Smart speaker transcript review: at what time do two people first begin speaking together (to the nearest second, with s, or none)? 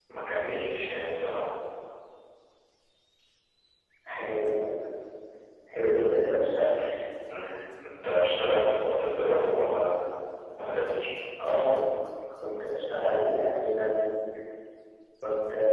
none